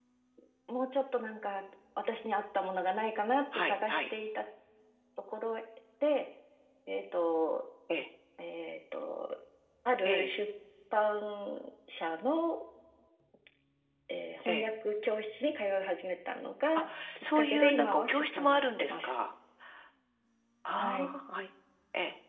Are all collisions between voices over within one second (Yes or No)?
No